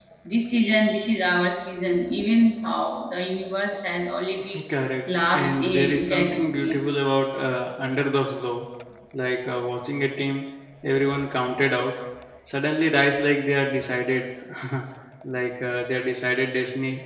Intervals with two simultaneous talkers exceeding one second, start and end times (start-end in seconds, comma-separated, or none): 5.3-6.8